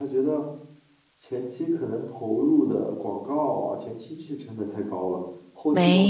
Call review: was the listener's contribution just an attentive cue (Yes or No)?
No